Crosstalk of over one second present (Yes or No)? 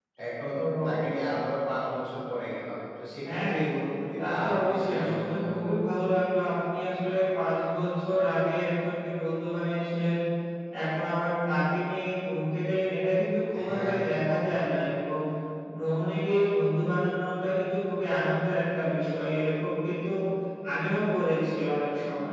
Yes